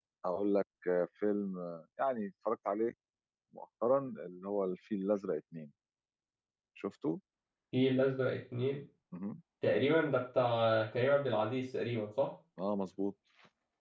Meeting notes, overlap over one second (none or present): none